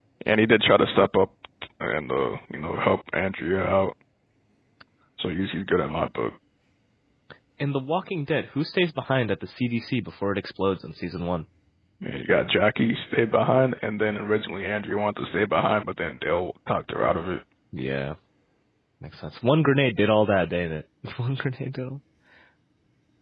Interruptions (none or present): none